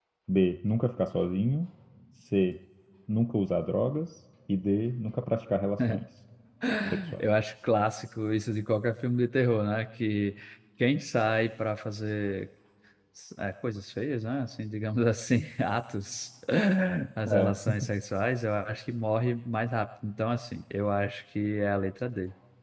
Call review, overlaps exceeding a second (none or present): none